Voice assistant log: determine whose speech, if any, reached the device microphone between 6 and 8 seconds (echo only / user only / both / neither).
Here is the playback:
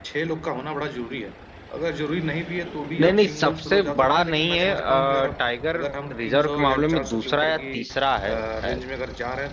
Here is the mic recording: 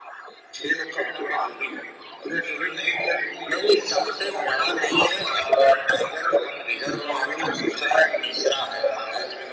echo only